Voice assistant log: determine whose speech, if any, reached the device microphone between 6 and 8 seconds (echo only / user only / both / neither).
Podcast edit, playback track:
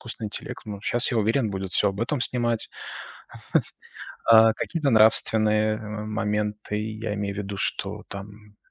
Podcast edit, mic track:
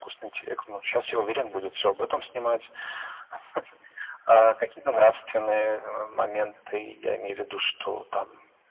echo only